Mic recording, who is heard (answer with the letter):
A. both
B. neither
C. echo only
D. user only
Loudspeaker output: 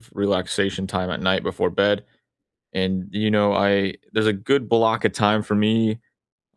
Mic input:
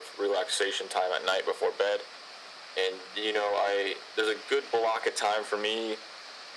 C